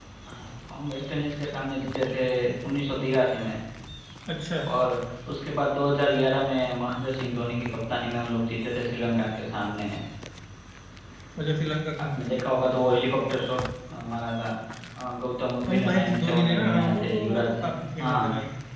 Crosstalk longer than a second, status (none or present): present